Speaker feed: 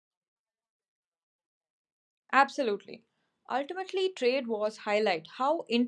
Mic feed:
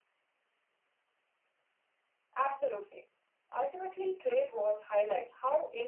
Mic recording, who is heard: echo only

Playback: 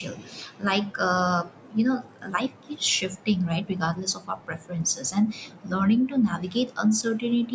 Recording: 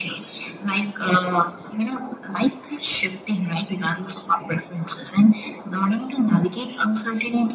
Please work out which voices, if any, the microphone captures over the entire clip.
echo only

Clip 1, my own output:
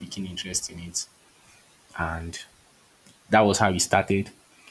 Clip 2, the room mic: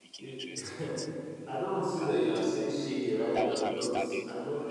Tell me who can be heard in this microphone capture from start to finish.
both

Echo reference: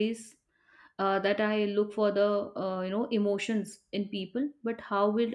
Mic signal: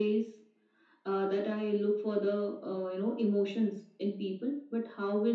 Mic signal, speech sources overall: echo only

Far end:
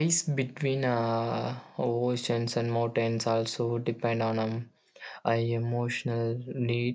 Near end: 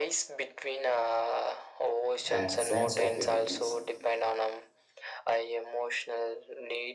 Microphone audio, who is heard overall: both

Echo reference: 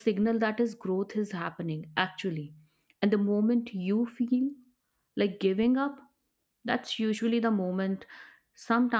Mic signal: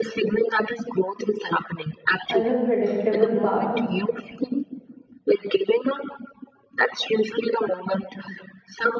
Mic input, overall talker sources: both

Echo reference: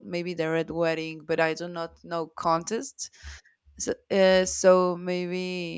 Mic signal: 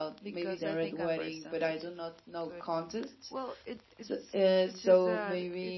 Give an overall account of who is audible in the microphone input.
both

